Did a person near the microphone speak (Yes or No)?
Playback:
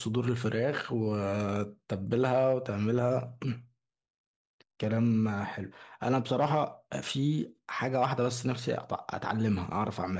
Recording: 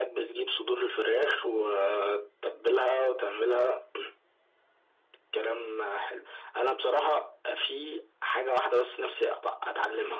No